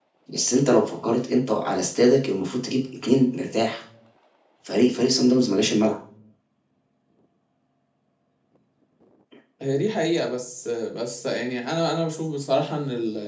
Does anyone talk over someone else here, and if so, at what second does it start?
none

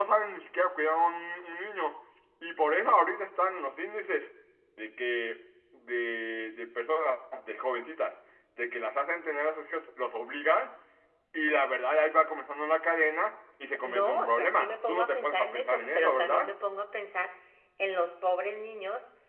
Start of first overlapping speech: 13.8 s

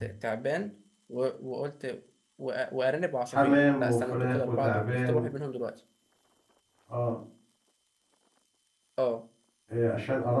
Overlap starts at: 3.3 s

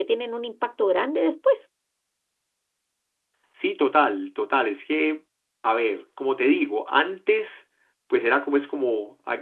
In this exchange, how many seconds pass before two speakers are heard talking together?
none

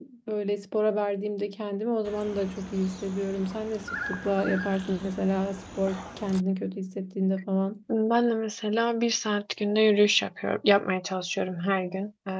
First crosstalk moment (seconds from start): none

